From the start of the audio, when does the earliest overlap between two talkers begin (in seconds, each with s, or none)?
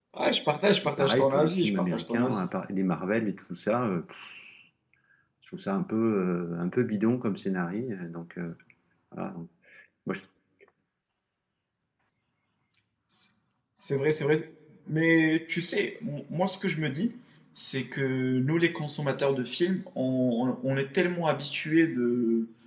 1.0 s